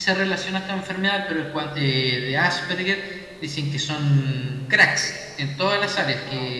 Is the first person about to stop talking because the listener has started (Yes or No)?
No